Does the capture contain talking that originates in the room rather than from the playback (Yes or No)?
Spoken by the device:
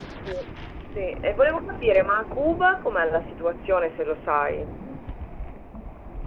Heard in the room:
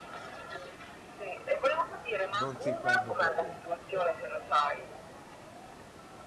Yes